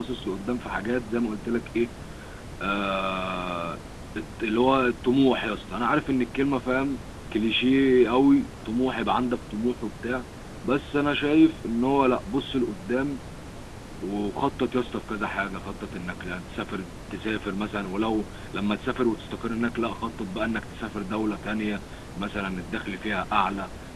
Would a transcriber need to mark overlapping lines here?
No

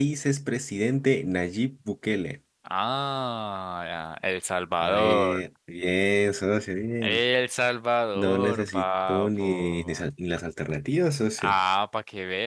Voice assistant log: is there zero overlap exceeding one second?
No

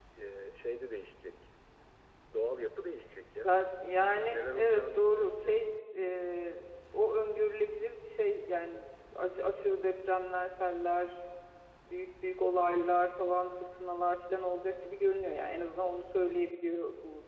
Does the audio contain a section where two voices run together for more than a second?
Yes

